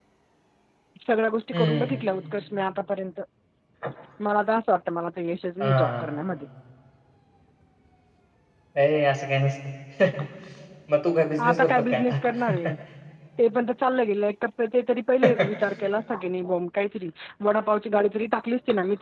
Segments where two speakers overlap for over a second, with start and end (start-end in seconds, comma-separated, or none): 11.5-12.7